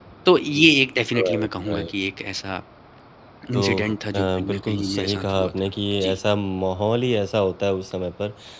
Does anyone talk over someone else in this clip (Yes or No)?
Yes